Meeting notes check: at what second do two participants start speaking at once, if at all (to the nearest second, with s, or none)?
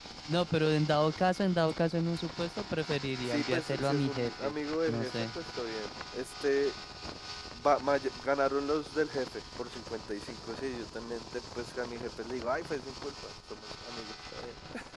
3 s